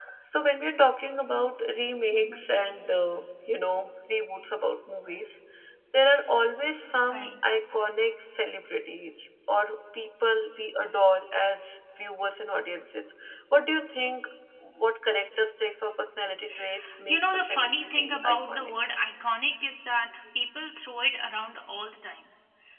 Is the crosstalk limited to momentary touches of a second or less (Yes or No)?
No